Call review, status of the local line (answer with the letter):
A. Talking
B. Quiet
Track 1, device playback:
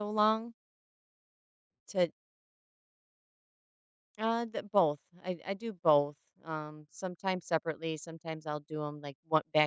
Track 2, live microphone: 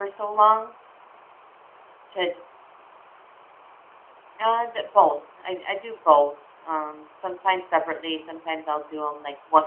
B